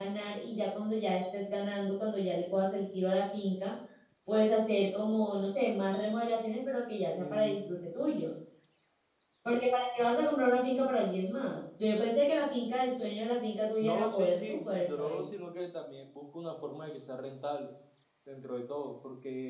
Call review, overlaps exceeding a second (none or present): present